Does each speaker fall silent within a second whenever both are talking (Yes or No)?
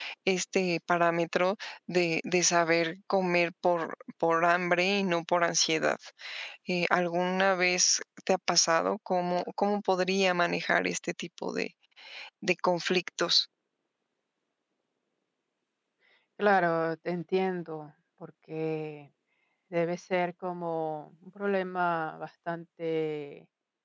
Yes